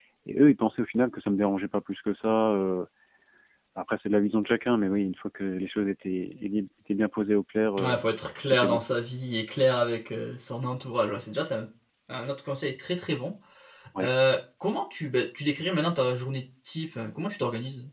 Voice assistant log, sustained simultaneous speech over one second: none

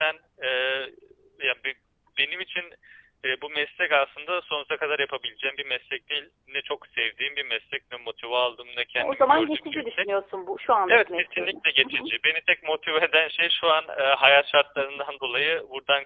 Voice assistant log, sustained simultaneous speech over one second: present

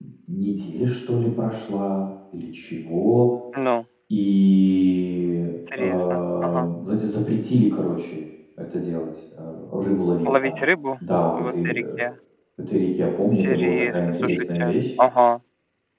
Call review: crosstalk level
present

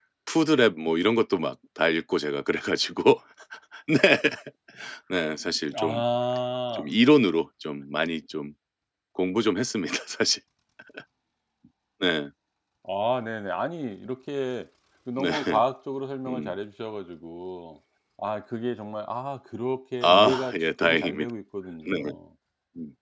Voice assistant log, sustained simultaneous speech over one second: present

